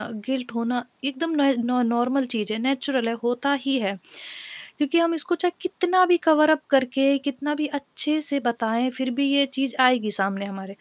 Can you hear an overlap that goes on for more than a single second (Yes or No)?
No